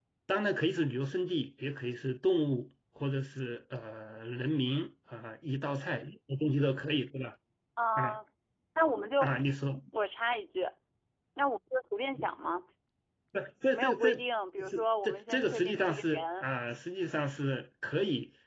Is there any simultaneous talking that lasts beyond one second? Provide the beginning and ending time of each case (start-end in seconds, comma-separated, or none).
14.7-16.4